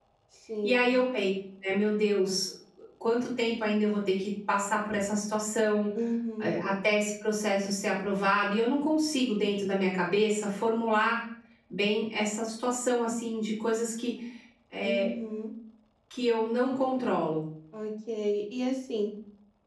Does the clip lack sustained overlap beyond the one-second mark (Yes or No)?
Yes